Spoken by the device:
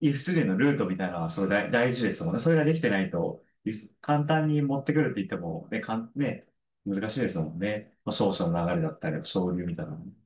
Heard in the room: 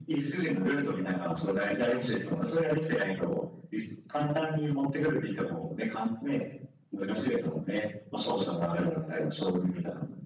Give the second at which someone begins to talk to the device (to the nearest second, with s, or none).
none